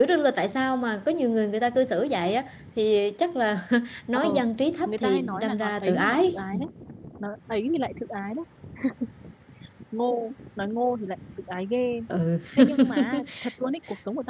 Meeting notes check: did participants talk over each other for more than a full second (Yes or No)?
Yes